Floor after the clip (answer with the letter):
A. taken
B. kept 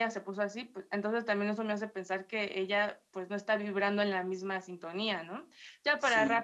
B